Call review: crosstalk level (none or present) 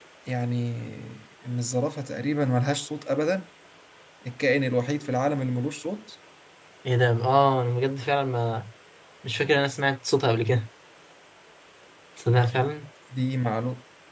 none